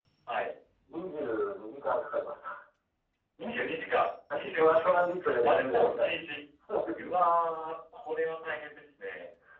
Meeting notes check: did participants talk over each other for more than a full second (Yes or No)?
Yes